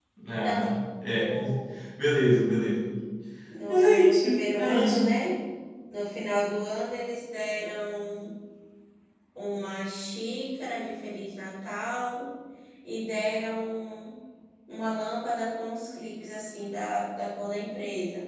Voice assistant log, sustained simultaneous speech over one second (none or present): present